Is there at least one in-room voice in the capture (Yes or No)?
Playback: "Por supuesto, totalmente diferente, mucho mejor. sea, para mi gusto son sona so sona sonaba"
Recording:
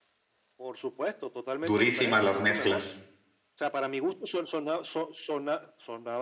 Yes